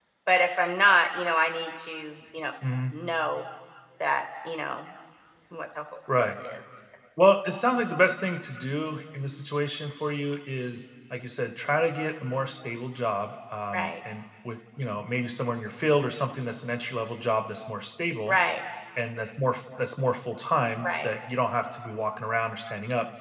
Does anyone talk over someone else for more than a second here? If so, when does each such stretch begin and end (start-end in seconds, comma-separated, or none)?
none